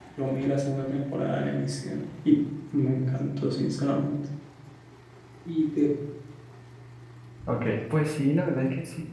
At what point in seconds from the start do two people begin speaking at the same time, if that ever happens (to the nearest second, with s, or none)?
none